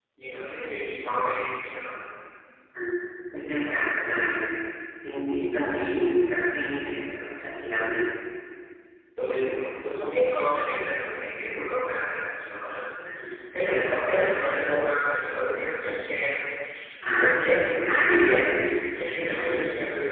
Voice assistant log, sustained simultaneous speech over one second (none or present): present